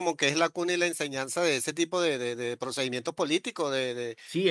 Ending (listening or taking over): taking over